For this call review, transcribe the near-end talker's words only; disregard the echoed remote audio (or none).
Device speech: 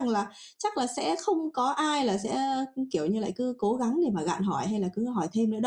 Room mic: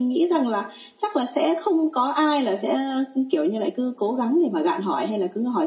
none